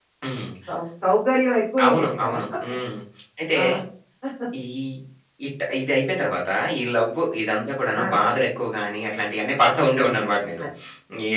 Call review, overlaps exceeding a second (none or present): none